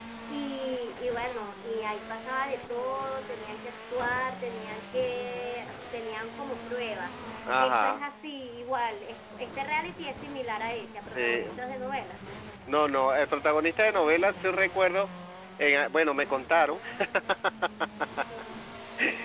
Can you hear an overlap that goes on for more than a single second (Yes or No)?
No